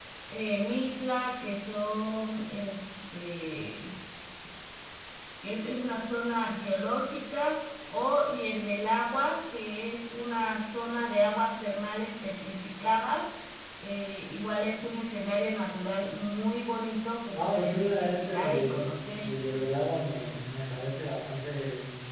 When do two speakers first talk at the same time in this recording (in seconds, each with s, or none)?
17.4 s